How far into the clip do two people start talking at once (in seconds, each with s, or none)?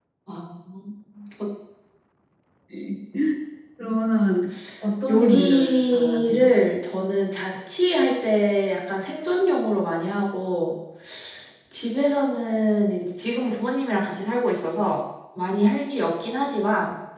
5.1 s